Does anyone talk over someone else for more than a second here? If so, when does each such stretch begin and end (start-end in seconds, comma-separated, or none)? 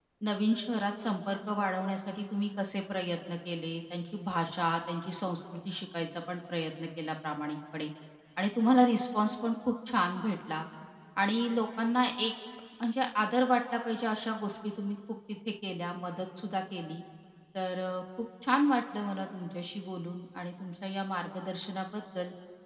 none